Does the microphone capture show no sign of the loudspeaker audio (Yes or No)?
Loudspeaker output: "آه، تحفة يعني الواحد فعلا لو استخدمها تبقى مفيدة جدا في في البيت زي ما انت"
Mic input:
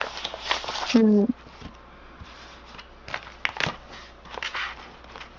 Yes